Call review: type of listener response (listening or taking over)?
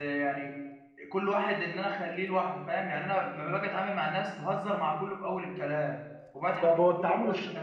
taking over